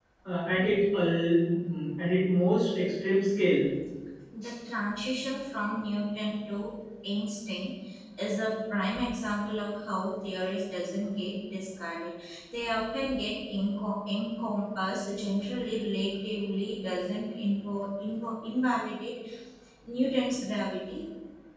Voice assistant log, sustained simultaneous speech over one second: none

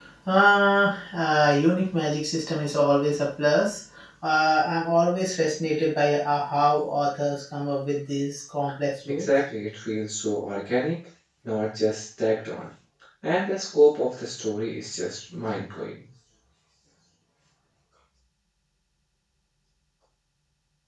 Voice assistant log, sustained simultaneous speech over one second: none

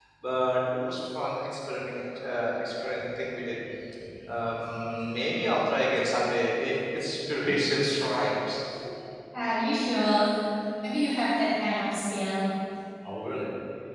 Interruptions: none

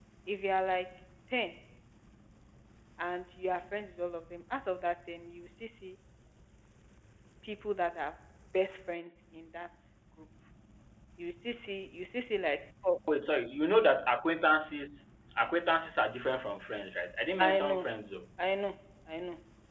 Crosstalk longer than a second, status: none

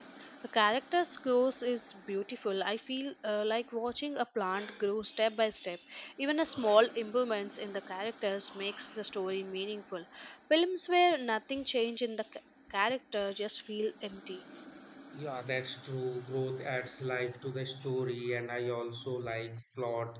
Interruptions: none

